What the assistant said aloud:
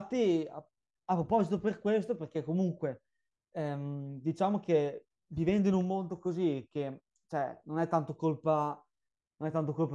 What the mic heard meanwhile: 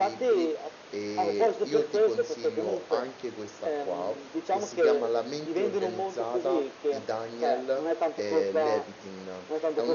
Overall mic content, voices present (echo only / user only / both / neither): both